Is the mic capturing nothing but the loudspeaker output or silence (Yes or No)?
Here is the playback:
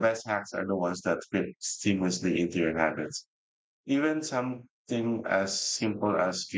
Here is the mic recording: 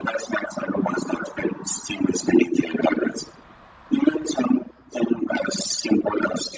Yes